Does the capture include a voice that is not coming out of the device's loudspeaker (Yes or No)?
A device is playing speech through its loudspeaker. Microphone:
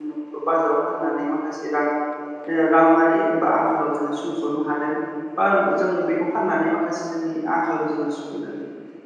Yes